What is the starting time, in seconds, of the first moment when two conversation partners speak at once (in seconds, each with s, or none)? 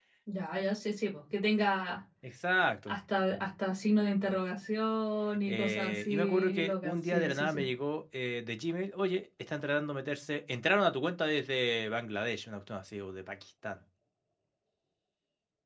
5.5 s